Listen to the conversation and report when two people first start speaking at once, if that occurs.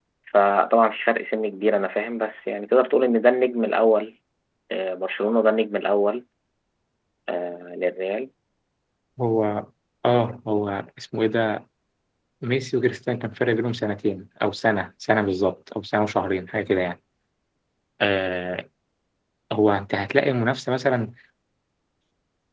none

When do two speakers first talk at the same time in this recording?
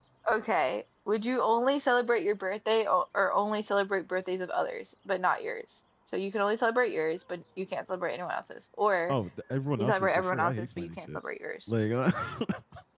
9.8 s

